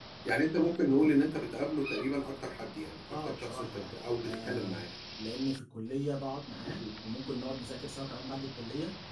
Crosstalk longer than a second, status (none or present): present